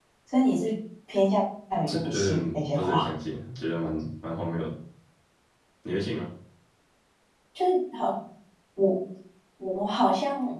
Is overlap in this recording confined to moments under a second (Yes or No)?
No